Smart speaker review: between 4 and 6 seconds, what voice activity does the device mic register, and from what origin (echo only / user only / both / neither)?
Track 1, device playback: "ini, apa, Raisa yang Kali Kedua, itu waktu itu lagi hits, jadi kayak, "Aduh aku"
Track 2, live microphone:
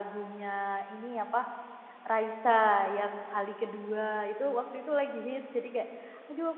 echo only